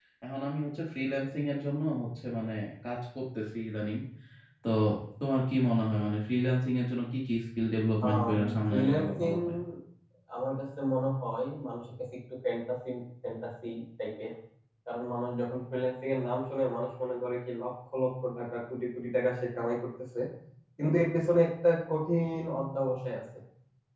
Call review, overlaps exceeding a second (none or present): present